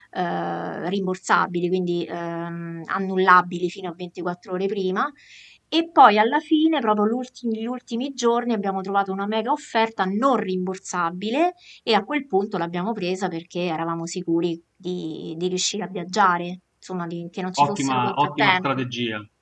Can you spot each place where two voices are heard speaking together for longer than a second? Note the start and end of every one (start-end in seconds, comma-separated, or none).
17.6-18.8